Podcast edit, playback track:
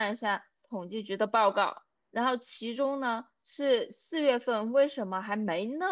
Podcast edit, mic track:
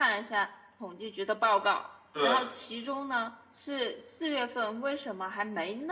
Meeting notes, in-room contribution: present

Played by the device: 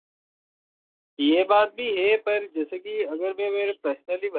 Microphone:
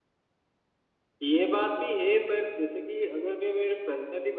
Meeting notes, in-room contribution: none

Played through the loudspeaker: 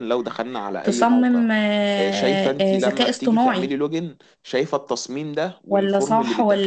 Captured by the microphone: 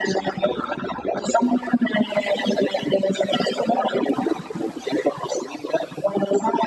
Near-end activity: none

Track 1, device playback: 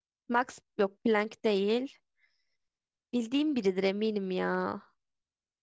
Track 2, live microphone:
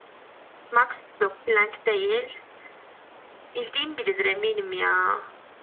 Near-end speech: none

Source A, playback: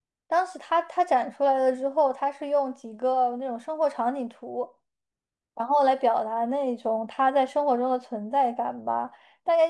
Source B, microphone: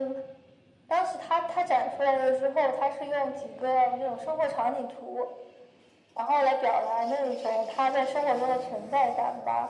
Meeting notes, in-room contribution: none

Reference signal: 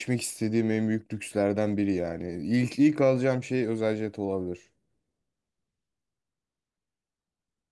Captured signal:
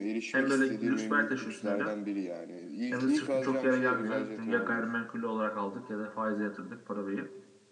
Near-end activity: present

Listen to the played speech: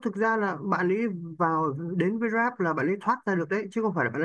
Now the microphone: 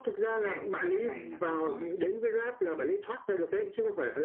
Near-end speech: present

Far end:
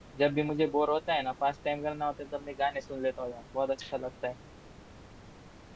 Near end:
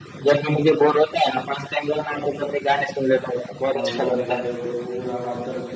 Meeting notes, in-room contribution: present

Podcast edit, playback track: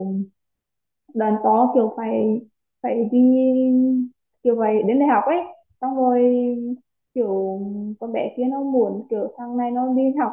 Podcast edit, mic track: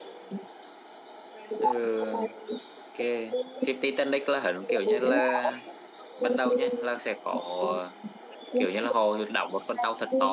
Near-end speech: present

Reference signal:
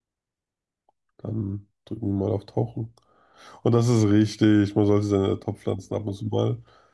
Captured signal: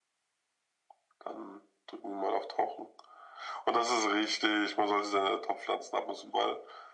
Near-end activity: none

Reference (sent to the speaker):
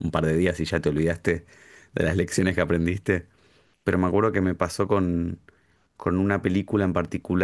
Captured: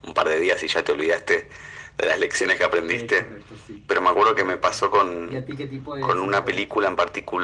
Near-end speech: present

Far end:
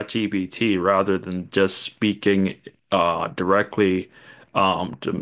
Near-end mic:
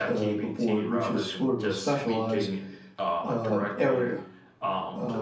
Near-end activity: present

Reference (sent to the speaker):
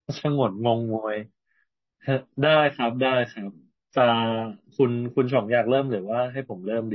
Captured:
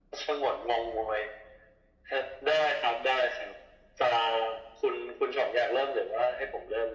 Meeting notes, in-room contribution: none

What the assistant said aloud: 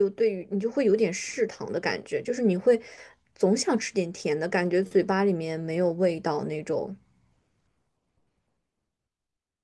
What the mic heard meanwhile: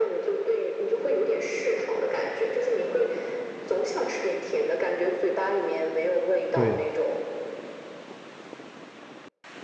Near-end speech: present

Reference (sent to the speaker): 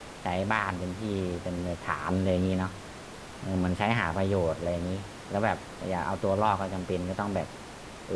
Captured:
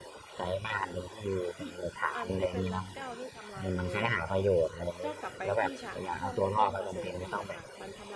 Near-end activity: present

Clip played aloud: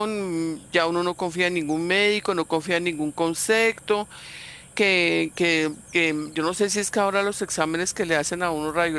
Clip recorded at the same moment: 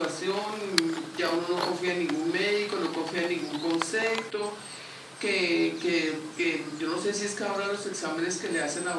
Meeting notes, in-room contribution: none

